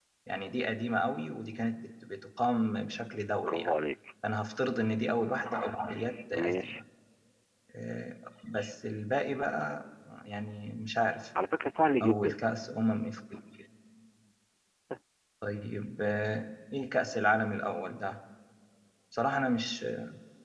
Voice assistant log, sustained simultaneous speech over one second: none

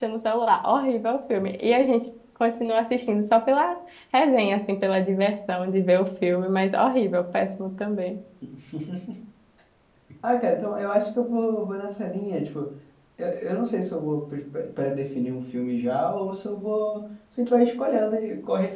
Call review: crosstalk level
none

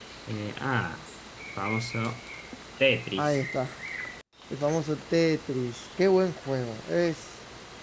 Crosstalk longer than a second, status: none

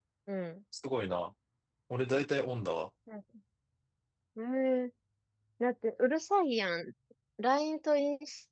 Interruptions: none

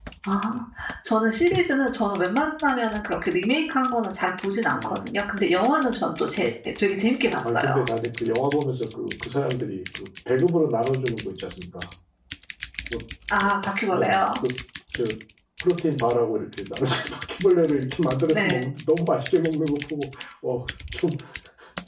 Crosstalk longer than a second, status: none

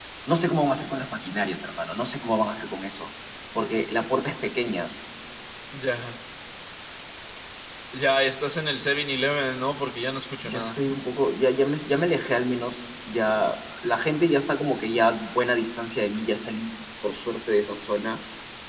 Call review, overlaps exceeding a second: none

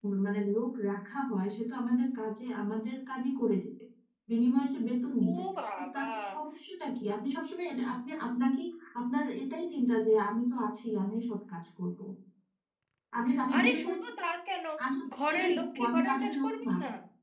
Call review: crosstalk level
present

